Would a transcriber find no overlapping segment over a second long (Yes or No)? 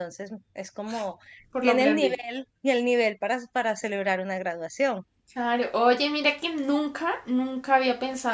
Yes